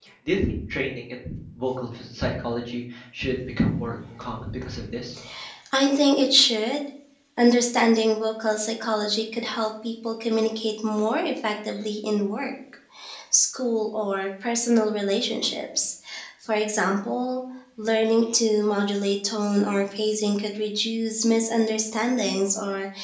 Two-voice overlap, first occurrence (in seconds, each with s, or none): none